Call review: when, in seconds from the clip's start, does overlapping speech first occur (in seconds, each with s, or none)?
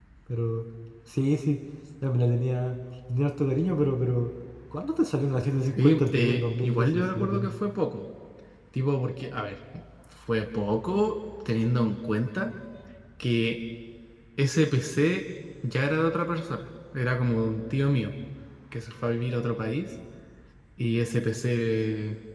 5.8 s